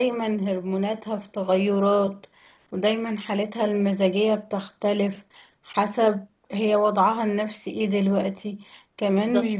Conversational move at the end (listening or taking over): listening